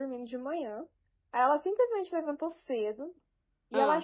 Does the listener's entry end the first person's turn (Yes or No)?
No